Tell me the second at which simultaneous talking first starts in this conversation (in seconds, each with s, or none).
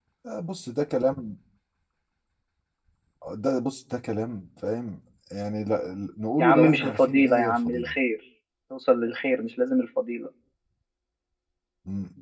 6.4 s